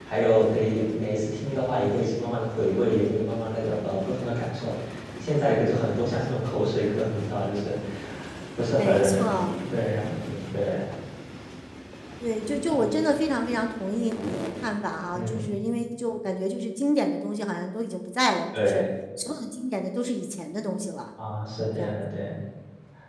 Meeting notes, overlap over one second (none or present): none